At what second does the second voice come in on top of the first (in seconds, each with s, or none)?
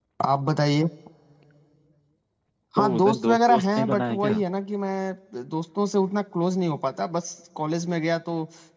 2.8 s